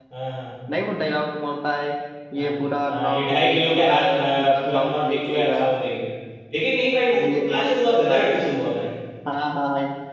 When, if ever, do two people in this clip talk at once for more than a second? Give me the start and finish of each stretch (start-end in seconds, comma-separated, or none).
2.9-5.6, 7.1-8.7